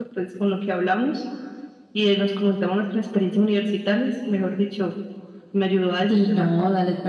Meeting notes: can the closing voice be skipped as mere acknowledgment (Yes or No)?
No